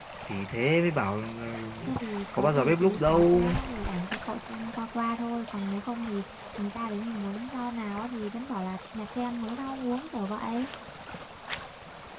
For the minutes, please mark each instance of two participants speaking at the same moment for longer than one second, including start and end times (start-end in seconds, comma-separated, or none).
2.4-3.6